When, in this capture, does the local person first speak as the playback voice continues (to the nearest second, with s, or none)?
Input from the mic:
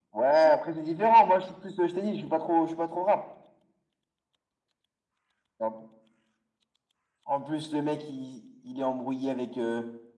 none